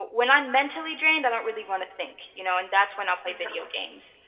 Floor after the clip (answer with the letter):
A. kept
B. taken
A